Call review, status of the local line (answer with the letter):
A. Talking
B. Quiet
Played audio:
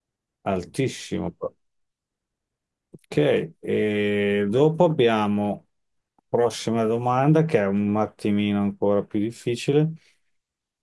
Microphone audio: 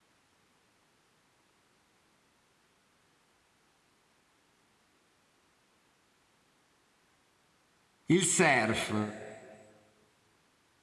A